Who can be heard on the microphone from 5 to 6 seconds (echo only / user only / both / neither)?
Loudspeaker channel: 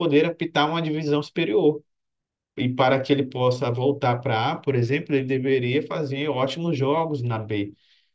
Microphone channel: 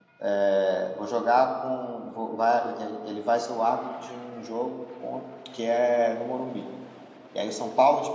user only